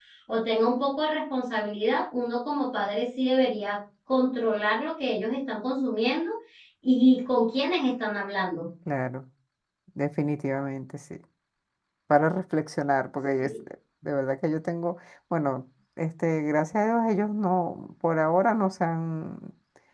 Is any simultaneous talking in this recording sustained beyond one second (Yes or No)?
No